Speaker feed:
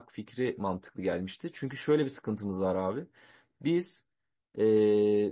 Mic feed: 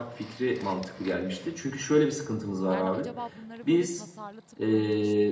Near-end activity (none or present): present